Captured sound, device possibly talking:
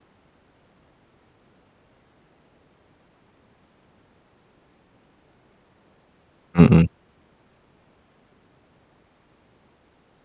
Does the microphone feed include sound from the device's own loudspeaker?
No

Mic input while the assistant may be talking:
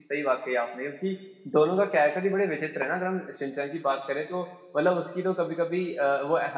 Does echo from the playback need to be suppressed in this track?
No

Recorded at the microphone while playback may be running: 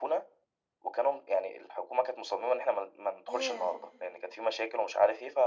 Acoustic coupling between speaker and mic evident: Yes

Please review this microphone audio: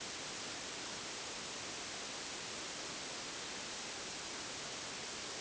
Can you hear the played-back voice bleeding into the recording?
No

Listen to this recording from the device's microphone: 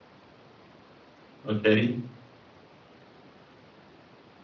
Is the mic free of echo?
Yes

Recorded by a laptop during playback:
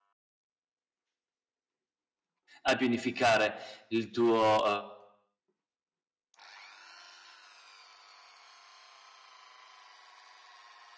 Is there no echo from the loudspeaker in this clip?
Yes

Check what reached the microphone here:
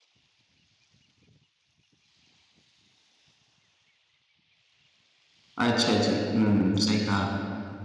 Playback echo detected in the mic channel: No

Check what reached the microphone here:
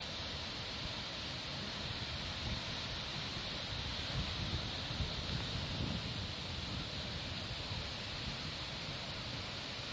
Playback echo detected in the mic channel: No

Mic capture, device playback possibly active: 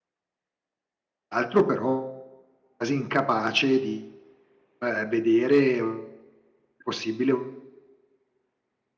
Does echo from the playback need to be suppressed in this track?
No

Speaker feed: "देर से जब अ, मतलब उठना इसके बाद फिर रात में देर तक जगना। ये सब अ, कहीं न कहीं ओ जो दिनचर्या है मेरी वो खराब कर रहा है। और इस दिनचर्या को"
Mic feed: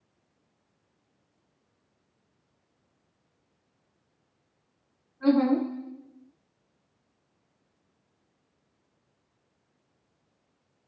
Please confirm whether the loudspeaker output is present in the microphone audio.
No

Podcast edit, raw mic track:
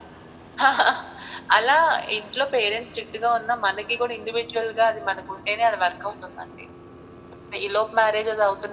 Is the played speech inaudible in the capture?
No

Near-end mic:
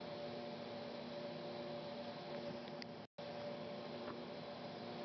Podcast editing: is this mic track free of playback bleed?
Yes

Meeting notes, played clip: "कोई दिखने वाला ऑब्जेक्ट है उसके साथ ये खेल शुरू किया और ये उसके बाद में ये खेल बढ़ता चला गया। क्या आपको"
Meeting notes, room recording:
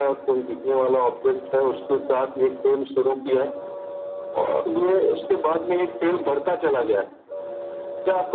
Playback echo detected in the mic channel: Yes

